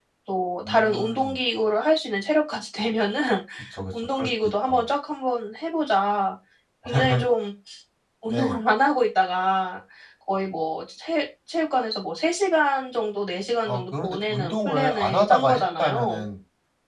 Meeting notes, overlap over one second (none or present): present